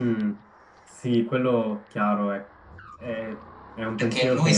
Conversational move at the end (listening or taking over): taking over